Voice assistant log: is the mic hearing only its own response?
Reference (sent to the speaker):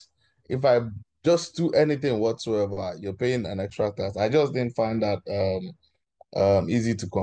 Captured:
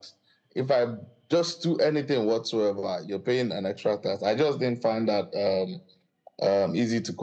Yes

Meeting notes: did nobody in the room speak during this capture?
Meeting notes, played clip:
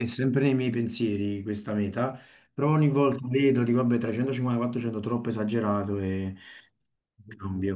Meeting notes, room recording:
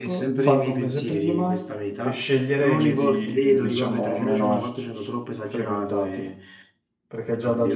No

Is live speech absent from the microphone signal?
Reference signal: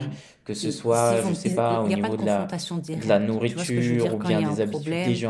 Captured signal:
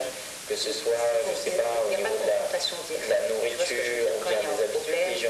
Yes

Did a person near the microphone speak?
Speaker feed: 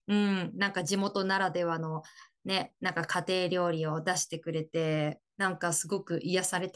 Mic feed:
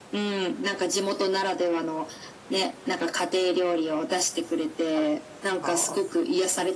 Yes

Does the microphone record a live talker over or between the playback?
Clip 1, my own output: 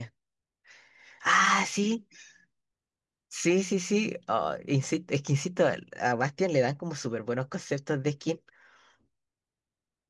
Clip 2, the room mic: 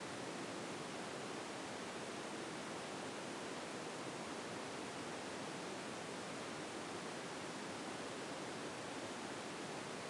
No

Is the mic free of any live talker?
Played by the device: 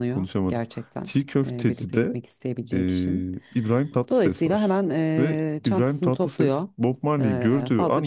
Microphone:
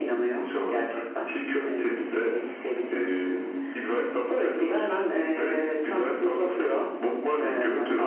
Yes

